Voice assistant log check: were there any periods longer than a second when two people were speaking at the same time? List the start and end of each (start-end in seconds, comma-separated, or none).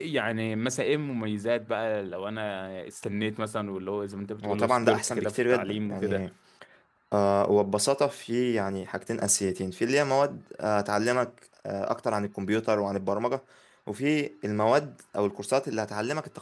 4.4-6.2